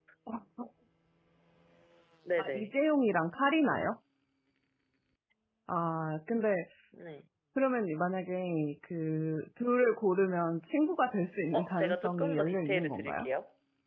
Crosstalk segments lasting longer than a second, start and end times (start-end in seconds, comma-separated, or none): 11.5-13.3